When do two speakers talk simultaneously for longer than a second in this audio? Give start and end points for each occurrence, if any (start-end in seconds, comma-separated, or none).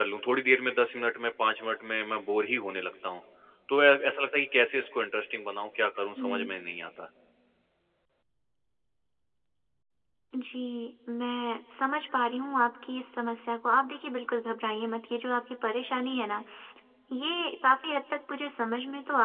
none